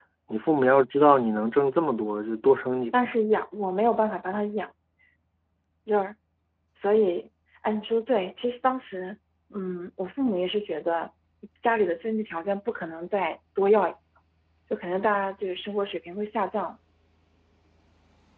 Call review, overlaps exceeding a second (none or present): none